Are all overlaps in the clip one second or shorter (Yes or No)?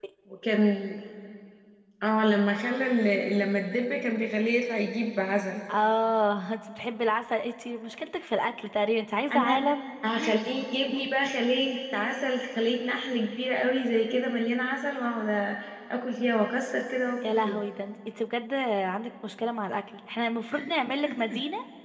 Yes